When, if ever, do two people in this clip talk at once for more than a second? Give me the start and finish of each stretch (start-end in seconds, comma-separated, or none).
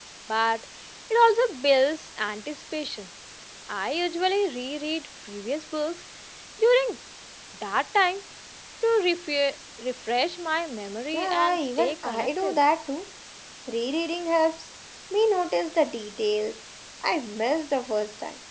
11.1-12.6